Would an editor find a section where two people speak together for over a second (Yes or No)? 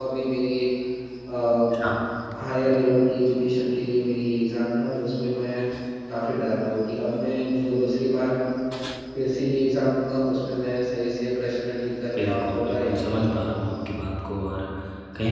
Yes